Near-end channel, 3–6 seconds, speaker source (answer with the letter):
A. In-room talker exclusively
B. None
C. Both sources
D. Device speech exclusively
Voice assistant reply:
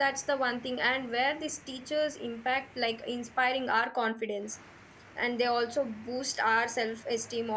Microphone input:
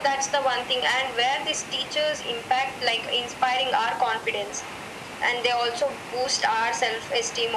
D